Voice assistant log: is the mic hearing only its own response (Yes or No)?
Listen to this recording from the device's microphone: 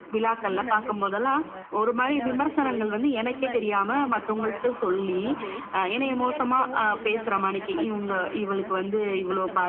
No